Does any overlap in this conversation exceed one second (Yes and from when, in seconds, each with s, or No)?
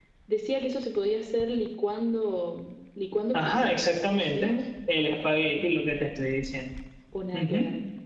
Yes, from 3.3 s